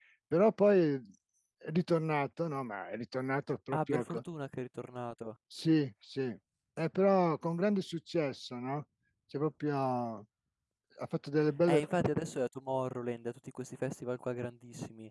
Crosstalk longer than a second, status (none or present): none